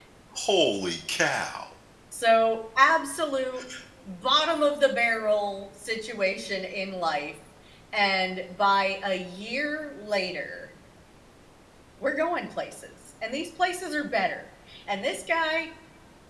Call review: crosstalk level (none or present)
none